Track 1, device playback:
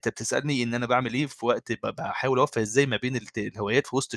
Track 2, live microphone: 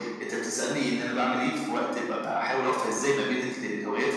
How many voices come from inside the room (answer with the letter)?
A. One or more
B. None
B